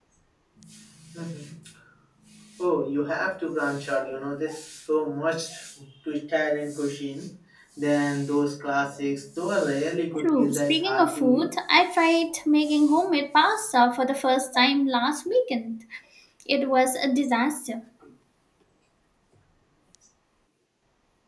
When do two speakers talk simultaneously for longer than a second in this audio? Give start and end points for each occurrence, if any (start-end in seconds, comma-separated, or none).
10.2-11.4